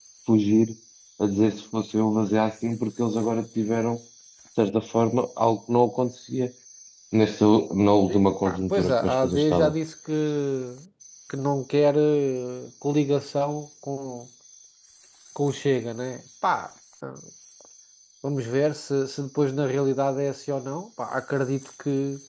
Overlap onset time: 8.1 s

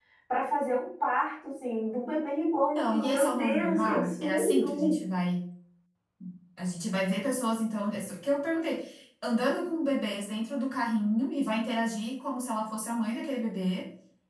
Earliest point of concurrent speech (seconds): 2.8 s

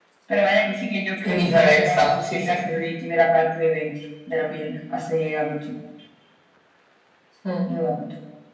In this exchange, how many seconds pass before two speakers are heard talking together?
1.2 s

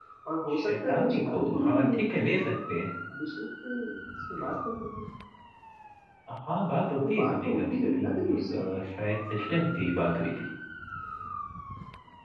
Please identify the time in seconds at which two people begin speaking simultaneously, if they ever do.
0.5 s

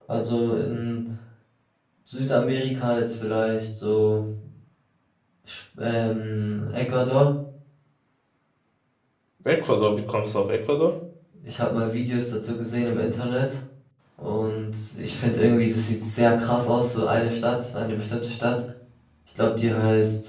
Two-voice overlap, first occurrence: none

